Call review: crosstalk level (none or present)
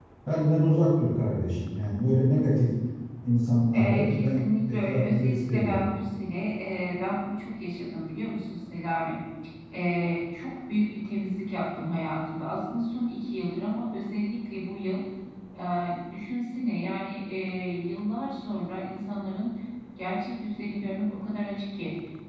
present